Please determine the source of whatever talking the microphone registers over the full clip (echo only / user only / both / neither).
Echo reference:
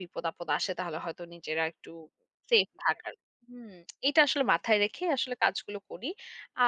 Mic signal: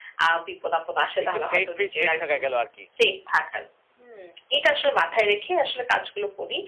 both